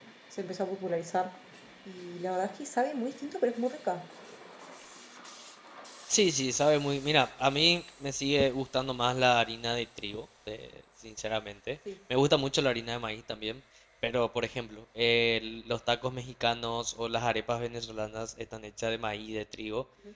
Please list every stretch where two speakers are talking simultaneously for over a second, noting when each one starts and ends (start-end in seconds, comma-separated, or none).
none